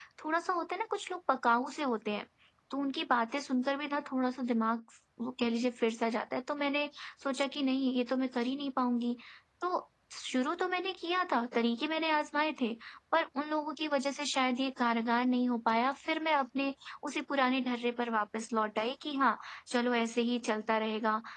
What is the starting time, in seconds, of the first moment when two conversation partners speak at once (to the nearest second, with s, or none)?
none